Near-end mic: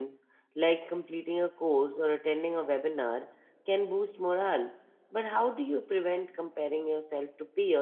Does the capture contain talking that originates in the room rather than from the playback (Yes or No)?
Yes